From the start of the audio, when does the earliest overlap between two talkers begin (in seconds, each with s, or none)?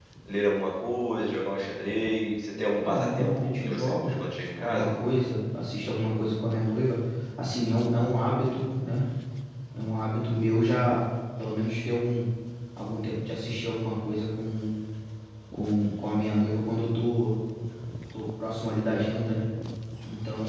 2.8 s